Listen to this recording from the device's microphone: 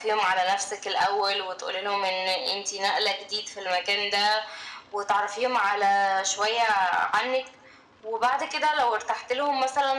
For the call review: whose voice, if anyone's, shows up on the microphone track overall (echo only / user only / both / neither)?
echo only